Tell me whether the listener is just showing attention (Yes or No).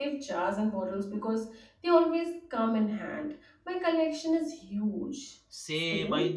No